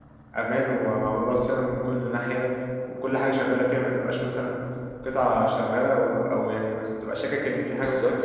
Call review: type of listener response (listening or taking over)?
taking over